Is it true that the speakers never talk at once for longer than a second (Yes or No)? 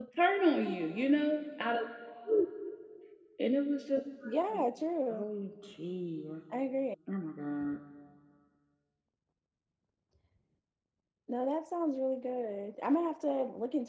Yes